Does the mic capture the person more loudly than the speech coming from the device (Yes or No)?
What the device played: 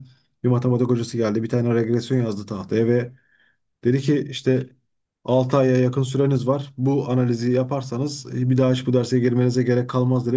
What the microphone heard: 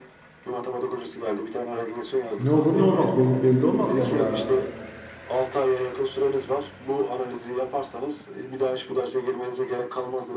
Yes